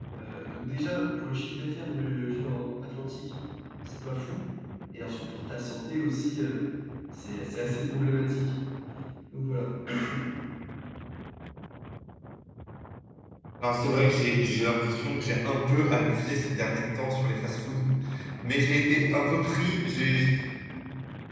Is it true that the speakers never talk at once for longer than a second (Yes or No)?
Yes